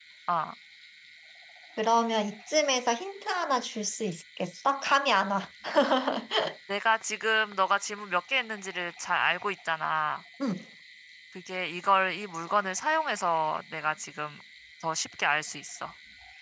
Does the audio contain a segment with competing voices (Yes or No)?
No